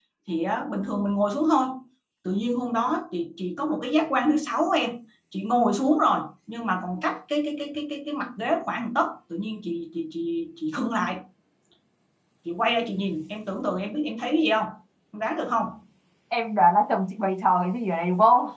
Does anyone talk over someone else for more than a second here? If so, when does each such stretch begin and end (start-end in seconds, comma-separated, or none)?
none